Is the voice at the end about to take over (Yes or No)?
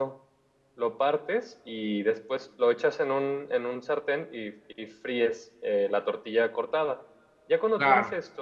No